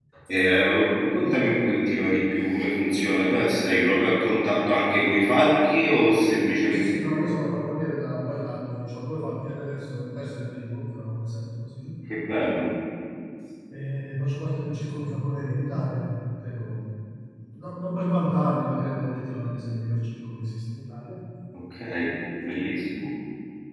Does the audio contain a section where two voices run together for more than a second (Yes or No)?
No